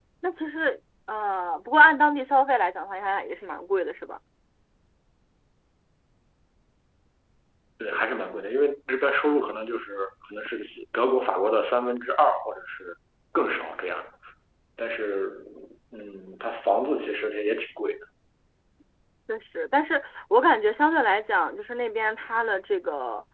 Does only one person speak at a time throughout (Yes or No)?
Yes